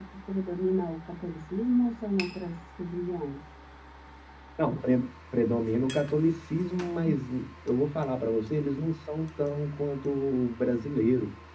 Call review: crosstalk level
none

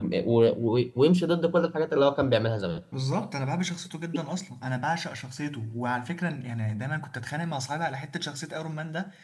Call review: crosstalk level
none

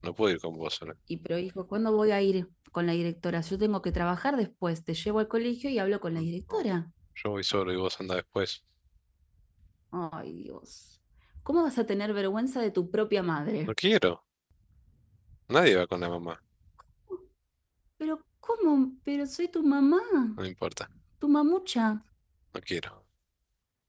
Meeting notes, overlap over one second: none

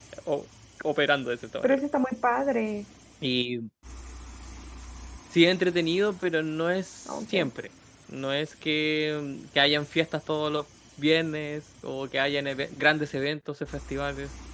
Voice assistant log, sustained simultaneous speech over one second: none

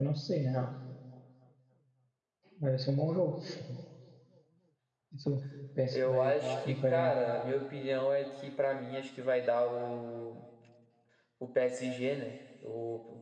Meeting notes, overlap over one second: present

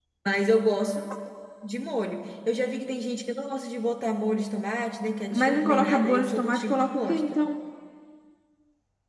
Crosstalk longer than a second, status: present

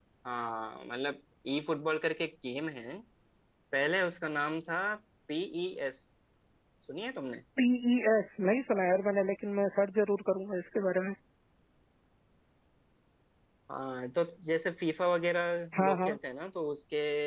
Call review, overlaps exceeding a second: none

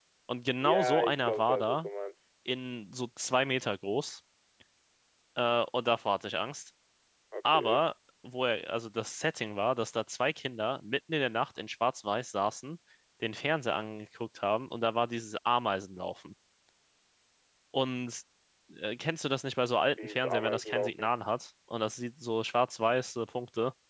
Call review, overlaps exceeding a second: present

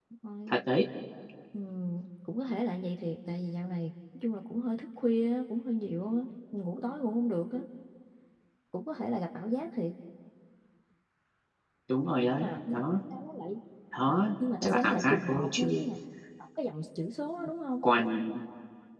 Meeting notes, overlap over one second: present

